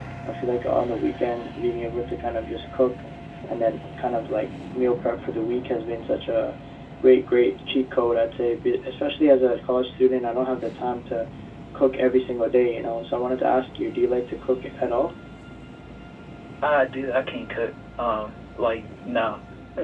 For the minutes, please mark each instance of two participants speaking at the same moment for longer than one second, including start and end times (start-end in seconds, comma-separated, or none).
none